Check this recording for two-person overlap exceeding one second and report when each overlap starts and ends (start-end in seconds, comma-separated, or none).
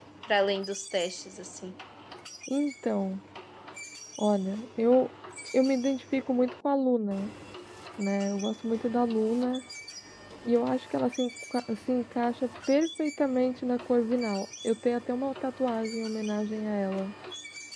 none